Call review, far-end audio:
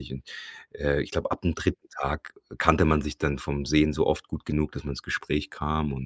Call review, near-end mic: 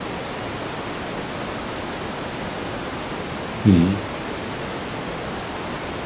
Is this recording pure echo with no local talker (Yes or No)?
No